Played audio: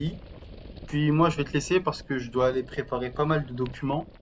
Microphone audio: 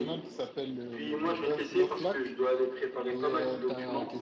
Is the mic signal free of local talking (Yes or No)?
No